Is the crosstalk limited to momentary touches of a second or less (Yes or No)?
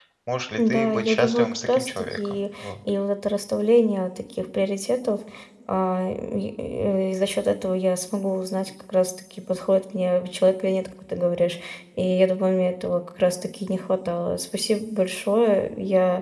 No